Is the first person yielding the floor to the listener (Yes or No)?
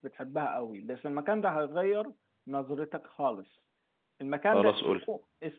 No